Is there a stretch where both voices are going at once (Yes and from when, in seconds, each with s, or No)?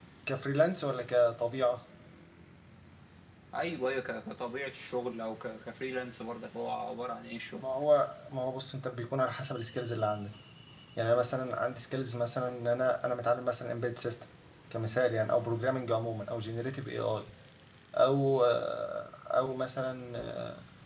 No